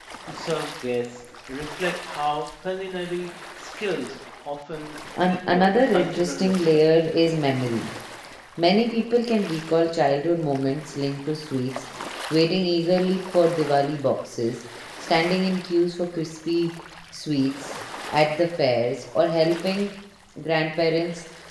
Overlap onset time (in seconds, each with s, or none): 5.2 s